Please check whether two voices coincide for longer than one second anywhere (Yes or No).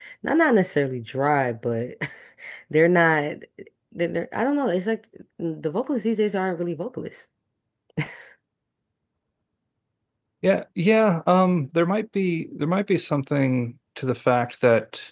No